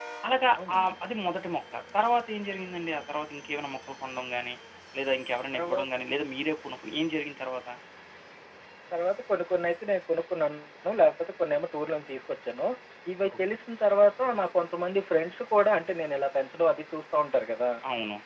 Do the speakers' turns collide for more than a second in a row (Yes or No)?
No